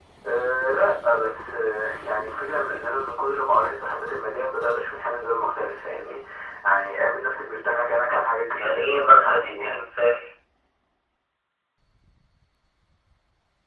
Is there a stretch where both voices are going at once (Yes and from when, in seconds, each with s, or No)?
Yes, from 8.5 s